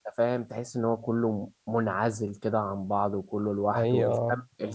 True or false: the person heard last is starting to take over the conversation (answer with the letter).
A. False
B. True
A